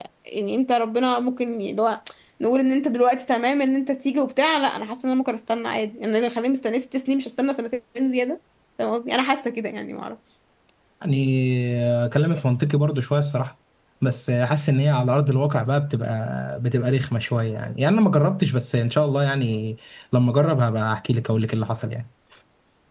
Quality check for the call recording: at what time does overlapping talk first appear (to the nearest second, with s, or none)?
none